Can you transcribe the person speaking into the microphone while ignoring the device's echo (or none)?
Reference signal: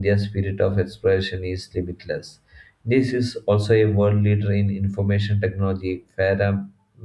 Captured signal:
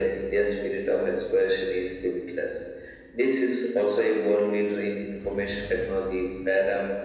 none